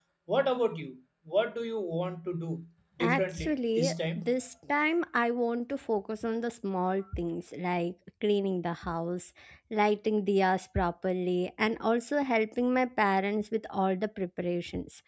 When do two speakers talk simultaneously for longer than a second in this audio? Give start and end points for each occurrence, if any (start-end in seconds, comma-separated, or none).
3.1-4.3